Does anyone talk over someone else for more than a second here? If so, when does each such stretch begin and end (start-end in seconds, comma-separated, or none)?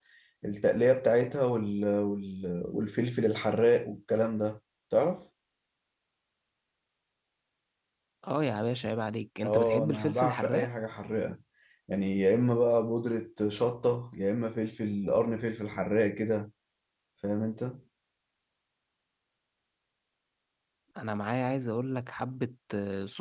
9.4-10.7